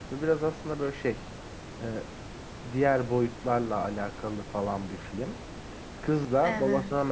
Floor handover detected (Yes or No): No